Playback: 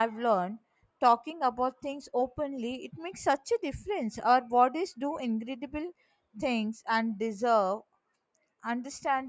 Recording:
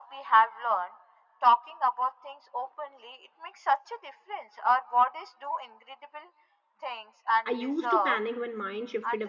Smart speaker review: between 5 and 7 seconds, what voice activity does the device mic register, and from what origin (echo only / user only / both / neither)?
echo only